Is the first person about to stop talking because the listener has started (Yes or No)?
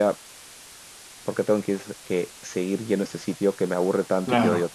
No